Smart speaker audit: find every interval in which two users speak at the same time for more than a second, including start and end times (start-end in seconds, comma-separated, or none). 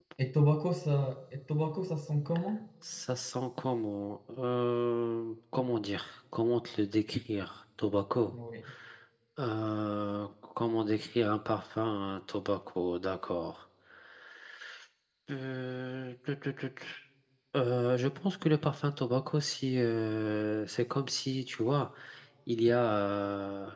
none